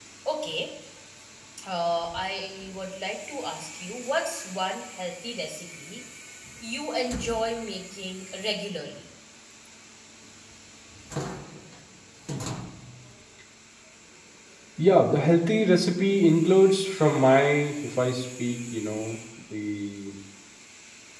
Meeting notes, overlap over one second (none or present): none